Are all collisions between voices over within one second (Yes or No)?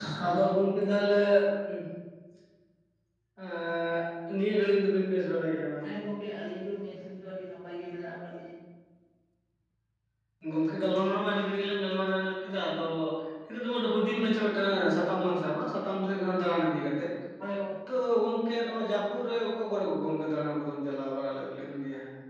Yes